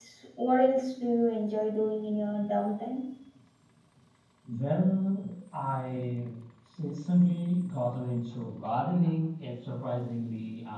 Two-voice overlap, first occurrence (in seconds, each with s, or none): none